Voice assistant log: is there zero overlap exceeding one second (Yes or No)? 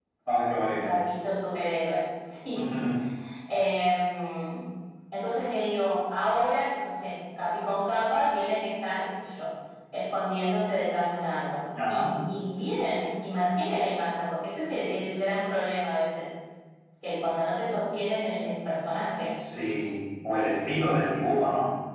Yes